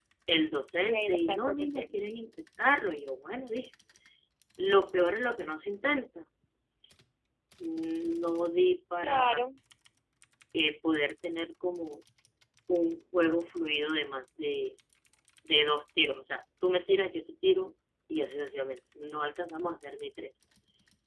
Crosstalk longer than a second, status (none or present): present